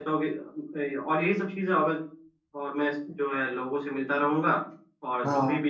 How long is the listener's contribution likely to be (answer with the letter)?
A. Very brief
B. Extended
A